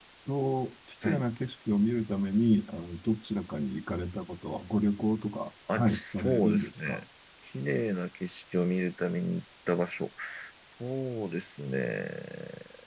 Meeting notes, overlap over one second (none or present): present